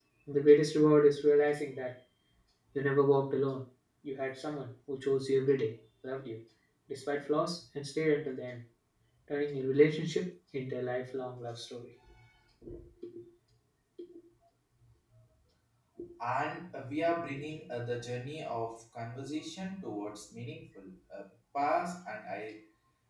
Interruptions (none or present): none